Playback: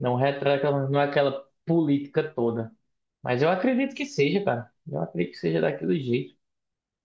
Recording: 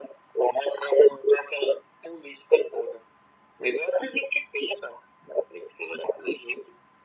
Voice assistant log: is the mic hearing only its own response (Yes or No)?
Yes